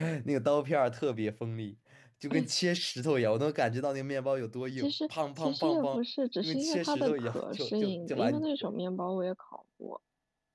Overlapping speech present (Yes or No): Yes